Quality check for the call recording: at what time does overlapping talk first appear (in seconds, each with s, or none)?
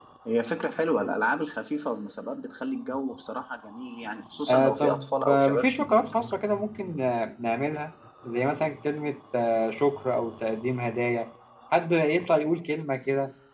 4.5 s